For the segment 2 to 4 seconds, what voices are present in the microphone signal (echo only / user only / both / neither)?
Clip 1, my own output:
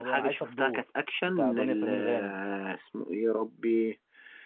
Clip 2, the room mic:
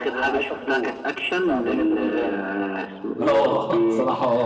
both